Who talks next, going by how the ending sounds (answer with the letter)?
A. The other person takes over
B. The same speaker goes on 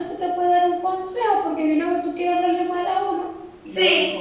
A